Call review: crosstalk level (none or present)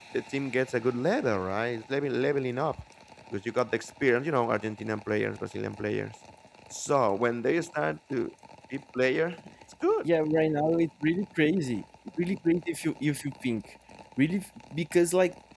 none